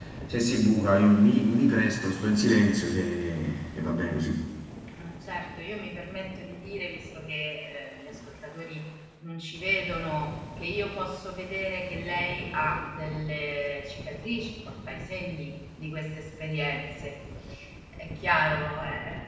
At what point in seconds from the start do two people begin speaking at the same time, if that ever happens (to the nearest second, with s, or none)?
none